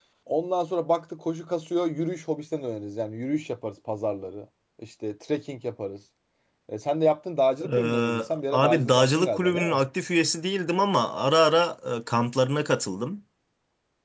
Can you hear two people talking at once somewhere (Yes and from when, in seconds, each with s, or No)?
Yes, from 7.6 s